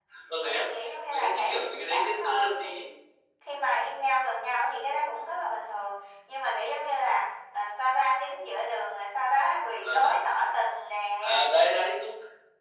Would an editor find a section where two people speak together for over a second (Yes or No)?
Yes